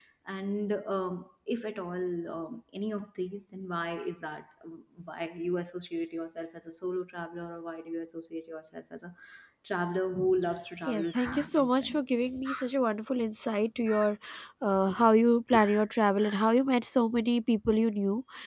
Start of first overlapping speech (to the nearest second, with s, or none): 11 s